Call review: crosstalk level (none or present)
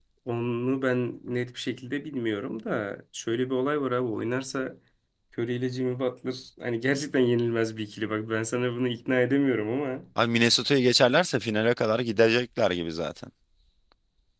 none